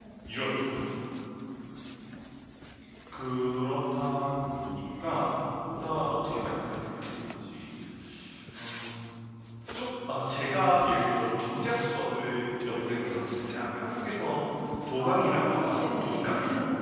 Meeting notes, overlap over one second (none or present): present